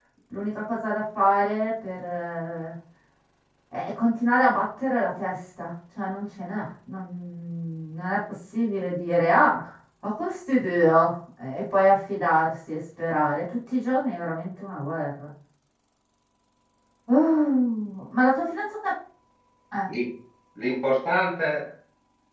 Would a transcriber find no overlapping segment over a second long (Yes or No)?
Yes